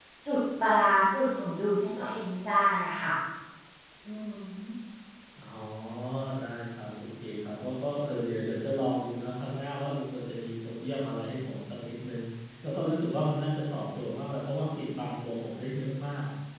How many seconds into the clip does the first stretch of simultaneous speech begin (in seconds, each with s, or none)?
none